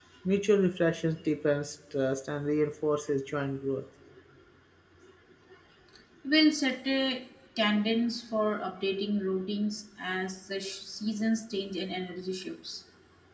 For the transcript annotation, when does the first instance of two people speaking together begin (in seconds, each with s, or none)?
none